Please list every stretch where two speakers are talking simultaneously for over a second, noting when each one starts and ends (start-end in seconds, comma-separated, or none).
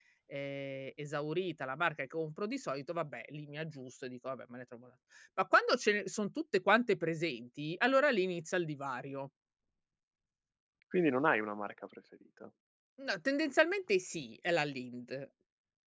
none